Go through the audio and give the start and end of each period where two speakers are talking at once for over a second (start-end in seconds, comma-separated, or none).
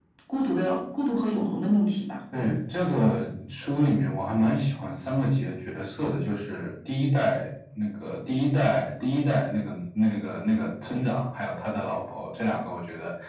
none